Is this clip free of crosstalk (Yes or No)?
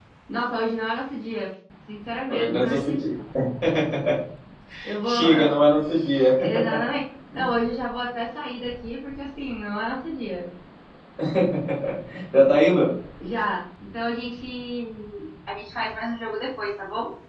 No